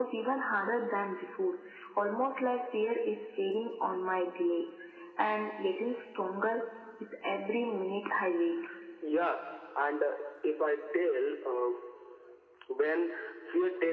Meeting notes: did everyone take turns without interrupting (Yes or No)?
Yes